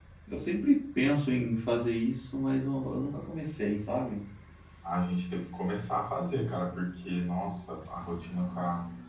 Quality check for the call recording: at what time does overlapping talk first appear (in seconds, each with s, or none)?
none